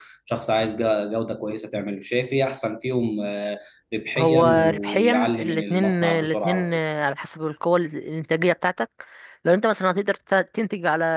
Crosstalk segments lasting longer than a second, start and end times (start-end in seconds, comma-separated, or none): 4.2-6.8